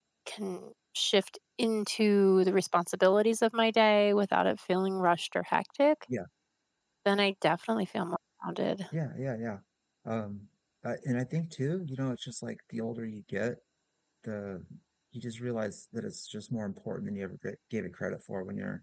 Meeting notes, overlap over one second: none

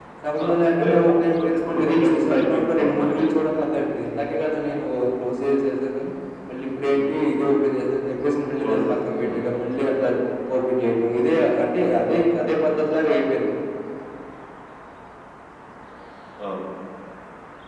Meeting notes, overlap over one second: present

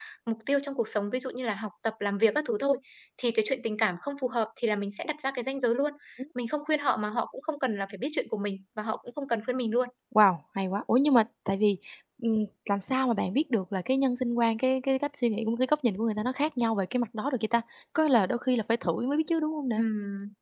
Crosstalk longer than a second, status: none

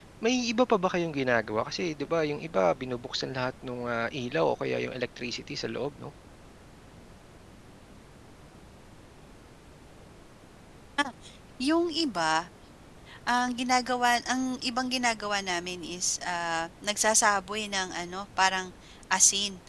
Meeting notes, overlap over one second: none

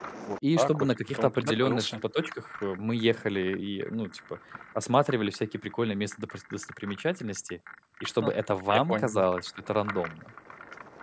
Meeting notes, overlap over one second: present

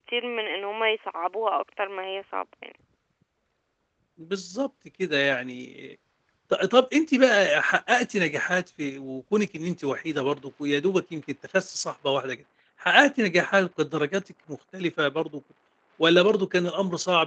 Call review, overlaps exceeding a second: none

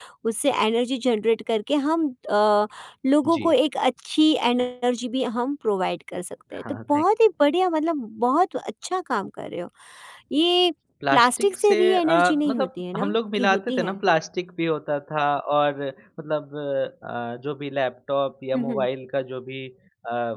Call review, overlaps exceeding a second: present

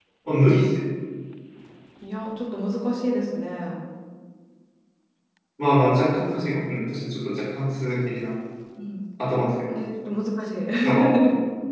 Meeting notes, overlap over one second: none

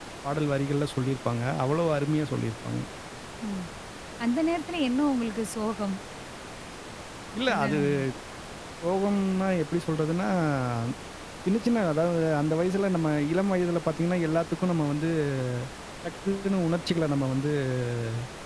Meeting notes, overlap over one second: none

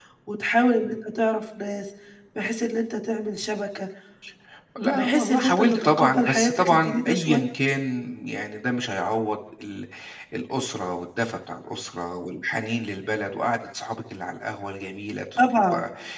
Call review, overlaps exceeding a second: present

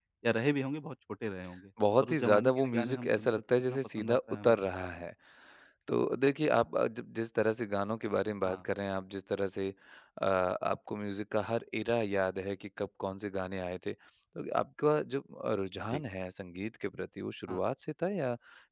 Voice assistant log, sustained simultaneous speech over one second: present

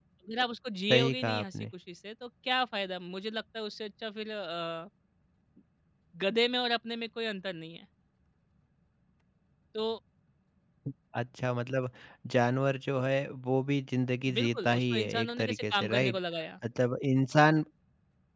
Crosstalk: present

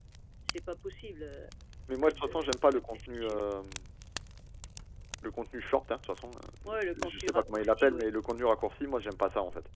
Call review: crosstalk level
present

